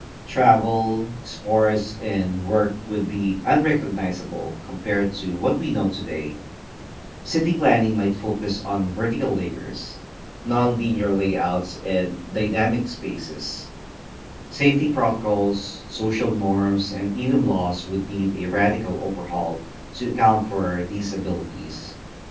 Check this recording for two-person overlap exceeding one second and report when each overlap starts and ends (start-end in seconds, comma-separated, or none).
none